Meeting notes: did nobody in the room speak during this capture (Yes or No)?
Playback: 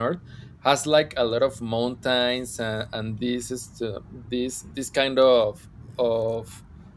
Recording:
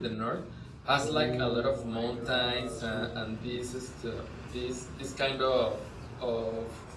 No